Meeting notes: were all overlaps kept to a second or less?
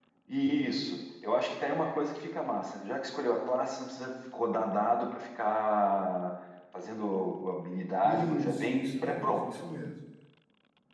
No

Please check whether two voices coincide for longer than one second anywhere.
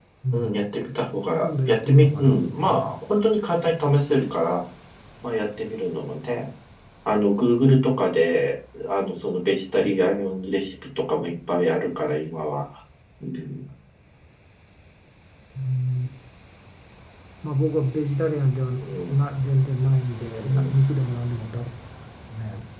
Yes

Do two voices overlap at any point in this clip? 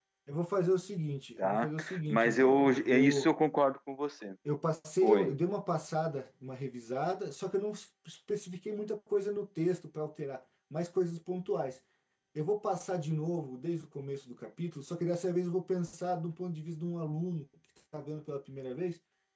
Yes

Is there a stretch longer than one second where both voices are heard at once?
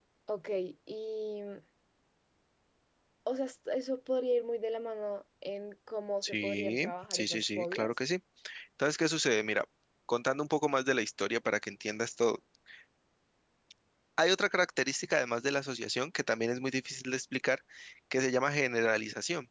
Yes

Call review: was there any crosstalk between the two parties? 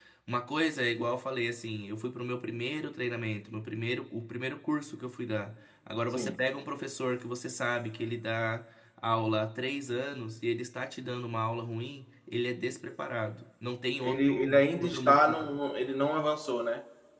Yes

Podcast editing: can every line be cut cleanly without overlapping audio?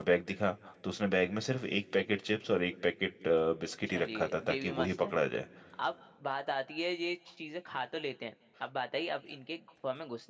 No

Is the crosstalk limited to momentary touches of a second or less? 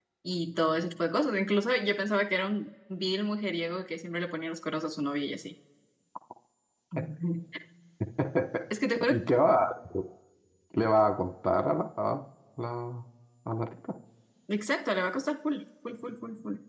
Yes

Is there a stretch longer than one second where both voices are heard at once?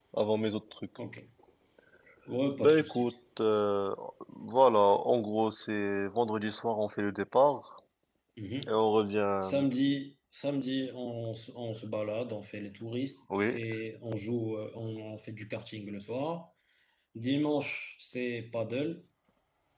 No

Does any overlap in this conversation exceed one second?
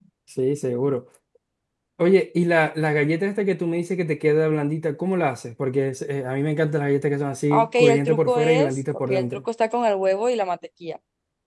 Yes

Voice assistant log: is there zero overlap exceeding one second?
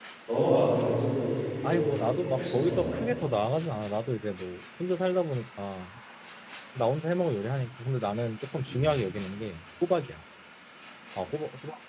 No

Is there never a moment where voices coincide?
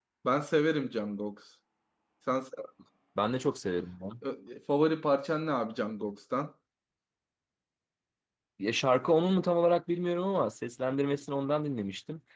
Yes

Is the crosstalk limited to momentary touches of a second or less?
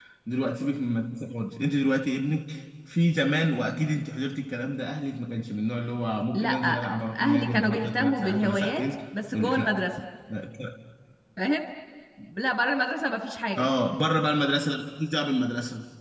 No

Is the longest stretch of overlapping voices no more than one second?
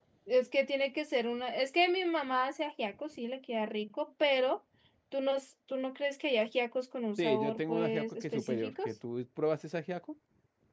No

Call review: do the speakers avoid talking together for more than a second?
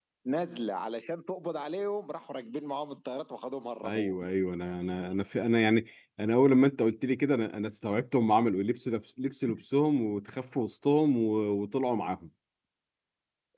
Yes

